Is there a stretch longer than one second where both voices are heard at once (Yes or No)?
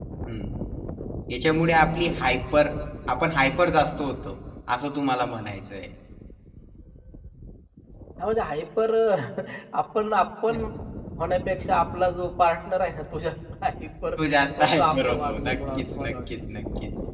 Yes